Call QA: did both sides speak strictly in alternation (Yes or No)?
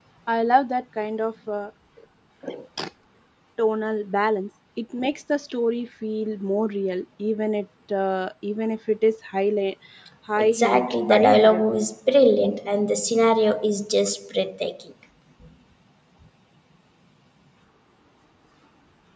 No